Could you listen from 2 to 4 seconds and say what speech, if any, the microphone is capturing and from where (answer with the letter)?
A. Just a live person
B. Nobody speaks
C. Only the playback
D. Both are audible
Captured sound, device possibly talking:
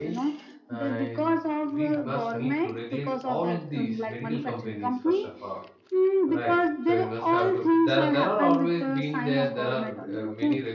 D